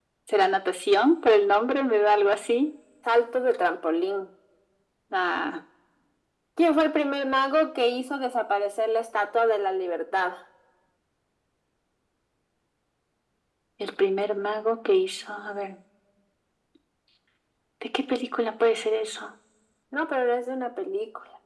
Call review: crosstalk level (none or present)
none